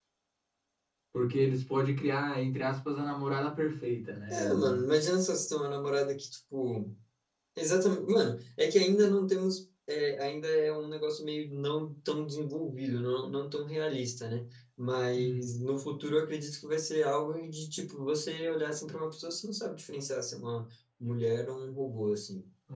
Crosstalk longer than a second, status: none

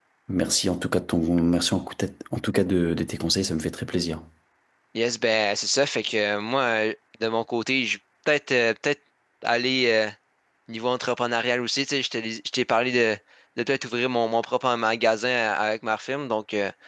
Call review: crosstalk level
none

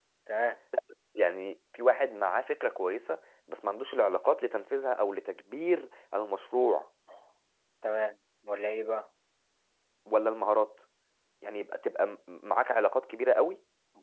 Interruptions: none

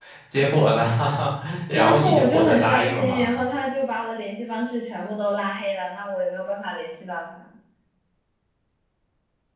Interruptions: present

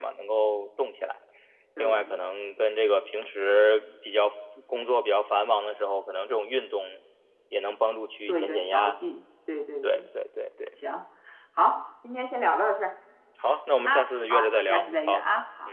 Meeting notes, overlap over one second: present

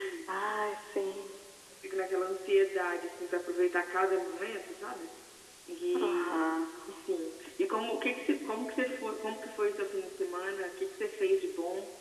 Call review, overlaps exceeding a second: none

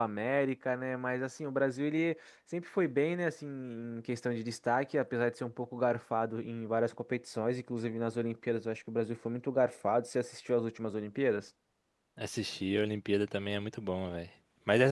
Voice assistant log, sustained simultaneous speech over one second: none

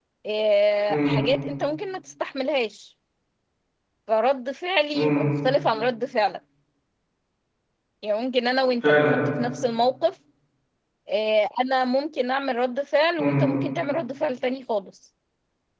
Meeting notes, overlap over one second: none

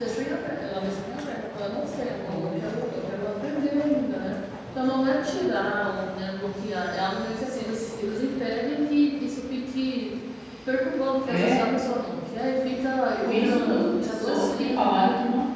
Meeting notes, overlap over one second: present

